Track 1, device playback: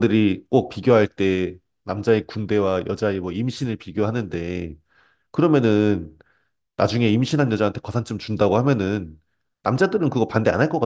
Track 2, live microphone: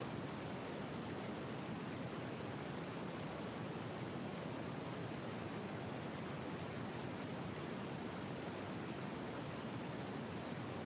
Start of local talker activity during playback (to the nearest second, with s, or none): none